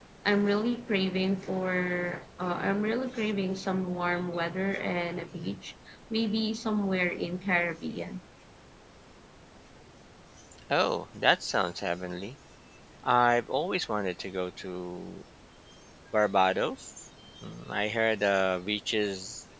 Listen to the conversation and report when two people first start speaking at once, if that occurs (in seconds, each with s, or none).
none